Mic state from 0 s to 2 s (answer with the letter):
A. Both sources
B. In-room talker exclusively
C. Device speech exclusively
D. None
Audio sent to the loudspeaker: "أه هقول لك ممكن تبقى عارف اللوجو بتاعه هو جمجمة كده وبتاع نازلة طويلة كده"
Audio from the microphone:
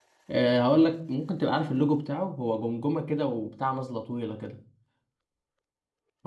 C